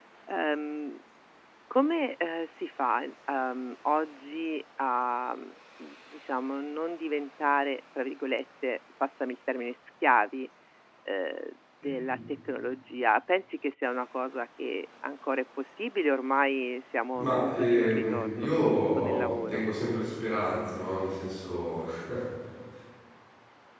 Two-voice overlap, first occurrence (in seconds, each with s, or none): 17.1 s